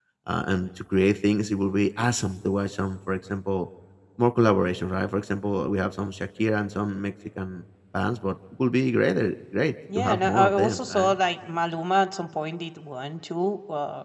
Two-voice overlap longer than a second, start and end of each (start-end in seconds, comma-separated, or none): 9.9-11.2